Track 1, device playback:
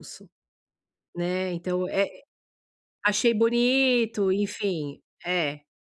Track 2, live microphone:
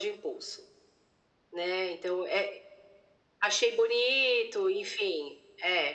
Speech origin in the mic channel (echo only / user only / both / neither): echo only